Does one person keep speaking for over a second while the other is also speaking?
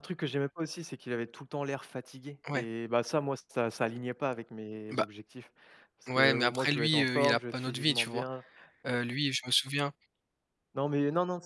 Yes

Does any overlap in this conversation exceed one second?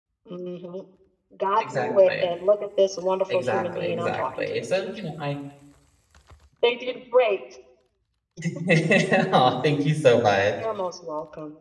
Yes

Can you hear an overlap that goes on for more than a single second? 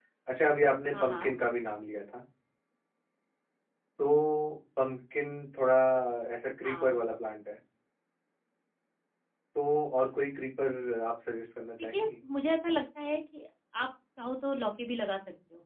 No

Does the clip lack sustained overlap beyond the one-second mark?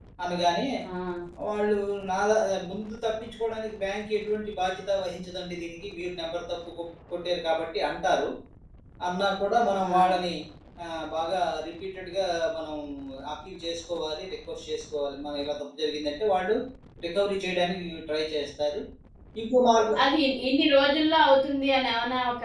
Yes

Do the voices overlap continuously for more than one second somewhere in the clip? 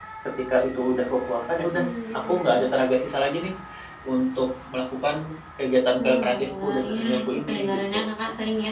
Yes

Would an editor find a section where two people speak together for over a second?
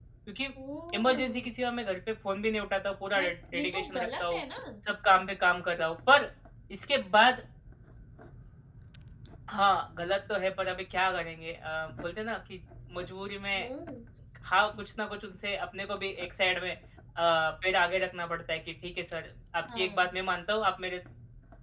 Yes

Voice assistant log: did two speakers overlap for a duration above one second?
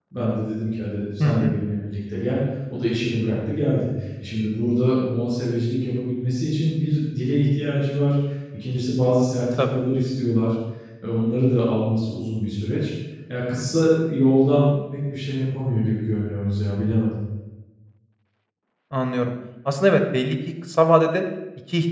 No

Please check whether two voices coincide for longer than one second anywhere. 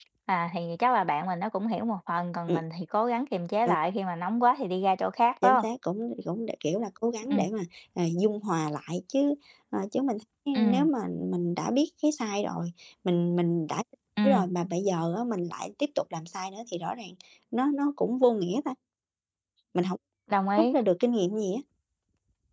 No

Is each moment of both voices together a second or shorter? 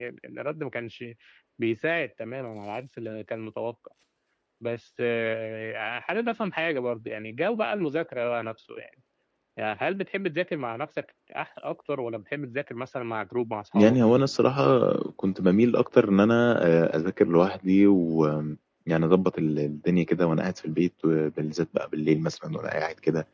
Yes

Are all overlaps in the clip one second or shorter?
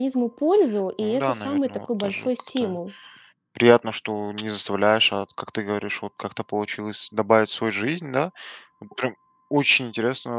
No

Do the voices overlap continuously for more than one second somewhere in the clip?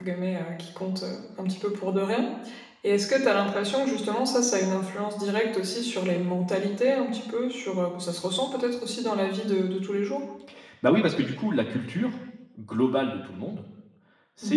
No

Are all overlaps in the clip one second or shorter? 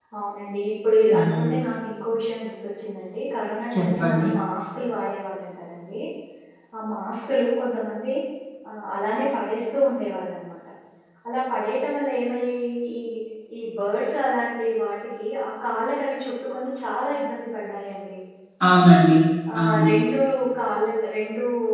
Yes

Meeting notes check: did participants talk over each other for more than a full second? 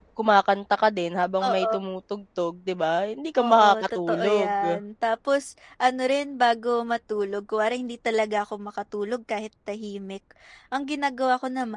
Yes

